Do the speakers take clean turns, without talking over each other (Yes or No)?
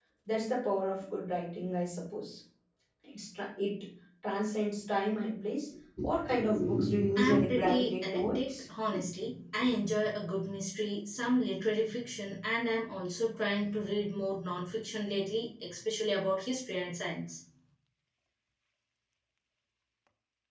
No